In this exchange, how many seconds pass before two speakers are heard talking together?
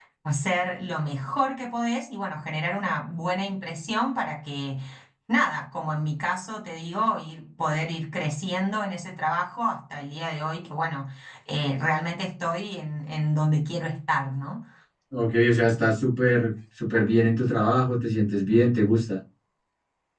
none

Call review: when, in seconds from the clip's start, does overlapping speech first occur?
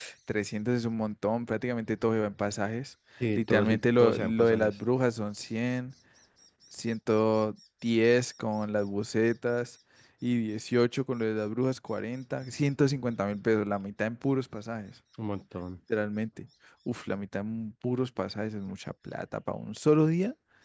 3.2 s

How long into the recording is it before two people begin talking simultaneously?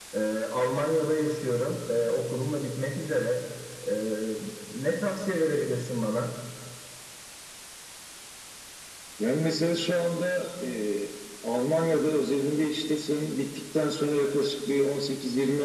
none

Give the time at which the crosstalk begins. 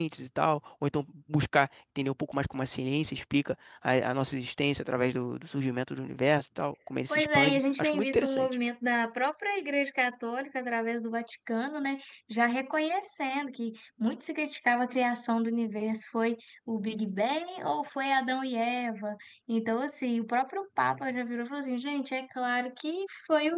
7.1 s

